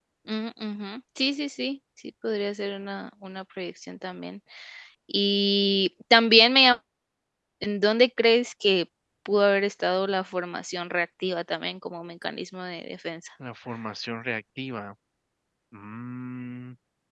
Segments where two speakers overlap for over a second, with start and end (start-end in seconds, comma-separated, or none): none